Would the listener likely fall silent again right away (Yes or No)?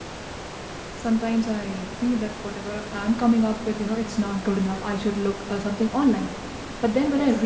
Yes